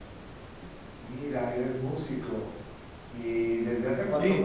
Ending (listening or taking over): listening